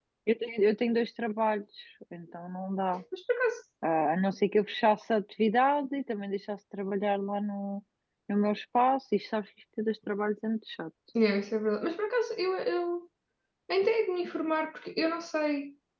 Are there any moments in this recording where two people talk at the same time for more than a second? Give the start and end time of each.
none

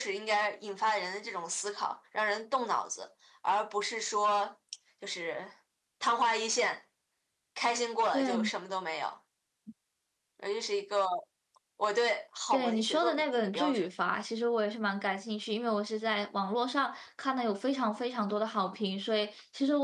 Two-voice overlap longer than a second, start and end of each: 12.5-13.9

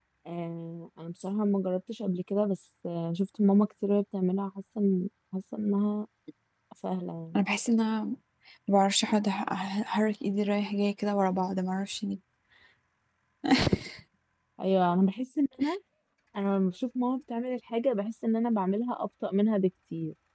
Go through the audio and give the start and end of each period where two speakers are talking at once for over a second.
none

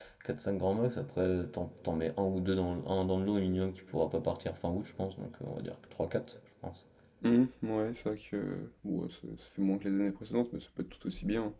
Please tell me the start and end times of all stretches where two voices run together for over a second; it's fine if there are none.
none

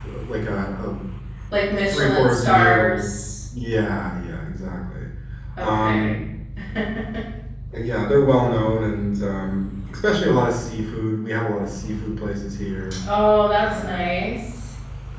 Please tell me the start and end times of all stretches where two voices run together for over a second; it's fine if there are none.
1.9-3.1

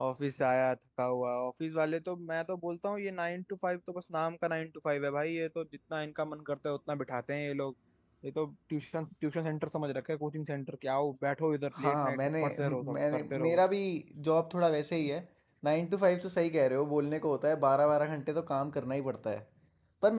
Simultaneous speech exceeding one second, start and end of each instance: 11.8-13.6

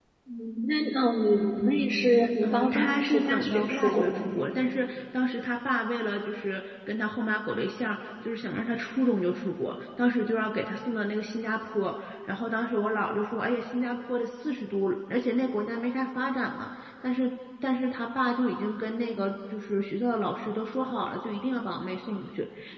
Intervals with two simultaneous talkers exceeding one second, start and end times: 2.4-4.3

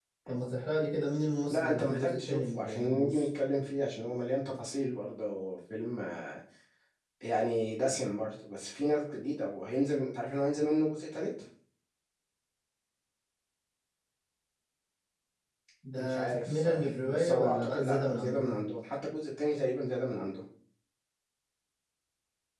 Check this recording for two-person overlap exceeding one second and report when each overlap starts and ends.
1.5-3.3, 16.0-18.5

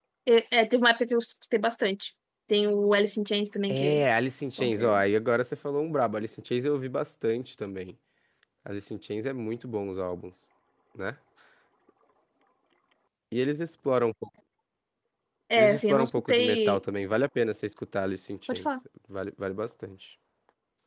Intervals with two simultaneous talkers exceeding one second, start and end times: 15.6-16.8

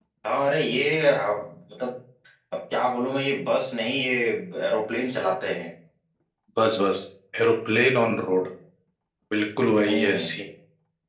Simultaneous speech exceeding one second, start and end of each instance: none

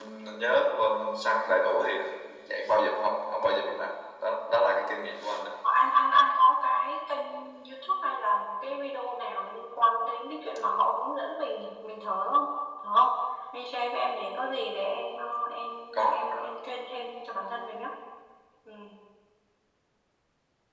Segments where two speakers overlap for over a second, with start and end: none

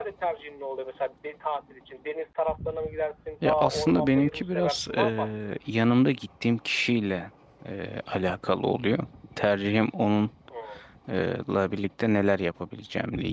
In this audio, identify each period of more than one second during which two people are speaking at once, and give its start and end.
3.4-5.5

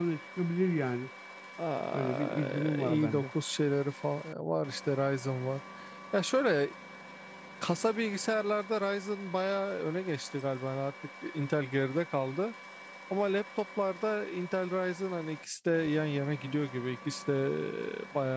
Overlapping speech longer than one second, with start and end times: 1.9-3.3

